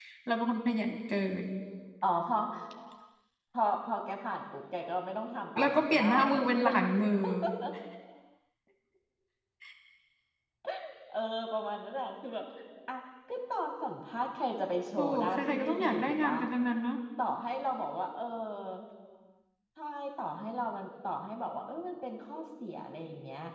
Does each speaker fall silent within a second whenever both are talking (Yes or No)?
No